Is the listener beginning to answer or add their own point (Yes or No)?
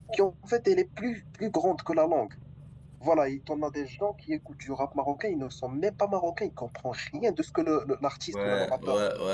Yes